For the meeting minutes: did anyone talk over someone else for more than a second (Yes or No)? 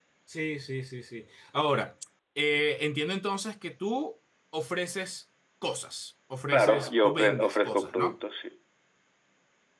Yes